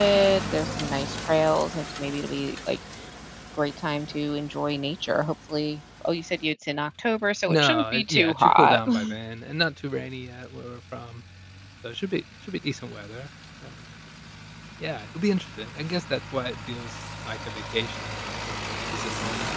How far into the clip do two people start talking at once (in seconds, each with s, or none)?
7.5 s